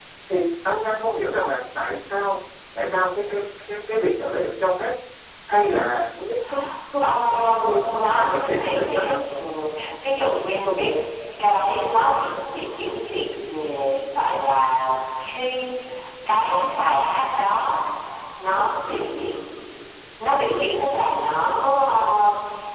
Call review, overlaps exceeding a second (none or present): present